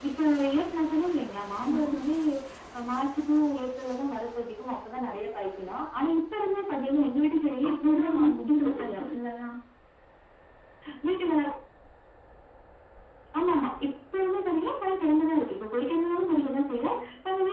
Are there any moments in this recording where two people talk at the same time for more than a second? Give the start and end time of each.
7.7-9.1

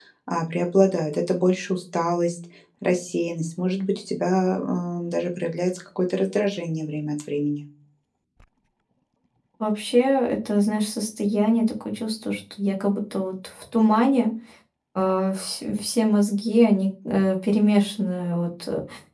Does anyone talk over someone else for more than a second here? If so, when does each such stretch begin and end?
none

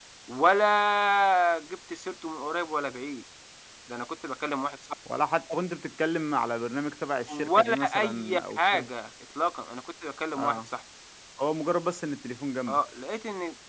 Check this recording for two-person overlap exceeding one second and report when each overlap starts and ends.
7.3-8.9

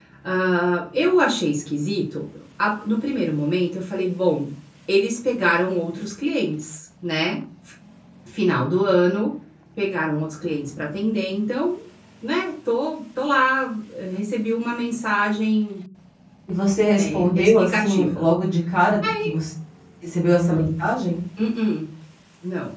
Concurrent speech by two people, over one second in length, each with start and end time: 17.0-18.2

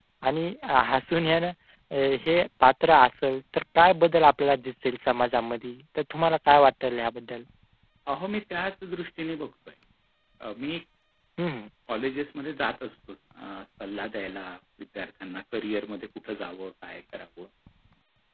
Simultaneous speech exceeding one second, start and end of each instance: none

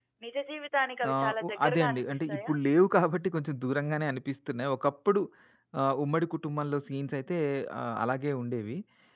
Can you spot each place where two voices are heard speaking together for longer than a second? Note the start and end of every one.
1.1-2.5

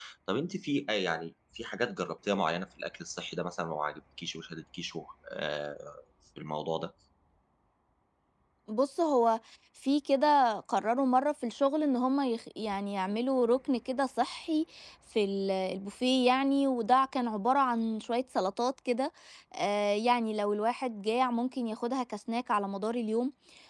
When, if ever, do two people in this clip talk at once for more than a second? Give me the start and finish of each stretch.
none

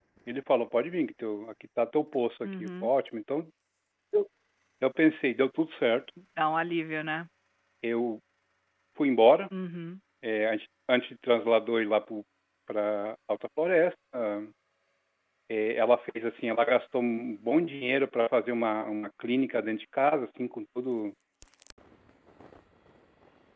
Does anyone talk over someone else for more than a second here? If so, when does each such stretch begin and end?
none

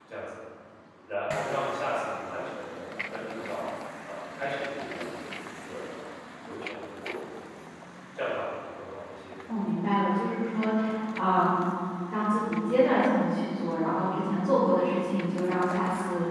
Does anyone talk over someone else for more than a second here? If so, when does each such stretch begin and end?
none

